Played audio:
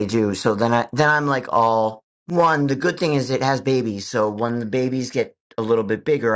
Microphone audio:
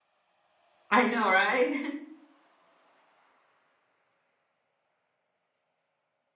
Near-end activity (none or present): present